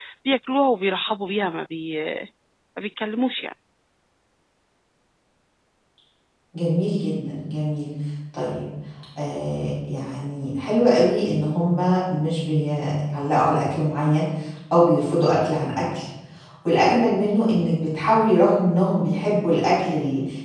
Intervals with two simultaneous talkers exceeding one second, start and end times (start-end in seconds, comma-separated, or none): none